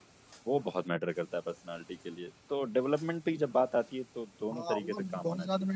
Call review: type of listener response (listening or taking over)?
taking over